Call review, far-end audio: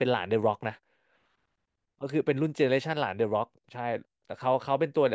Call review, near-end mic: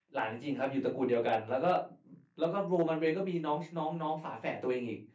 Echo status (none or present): none